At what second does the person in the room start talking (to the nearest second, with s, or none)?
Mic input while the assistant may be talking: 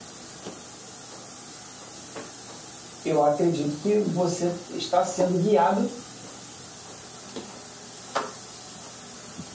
3 s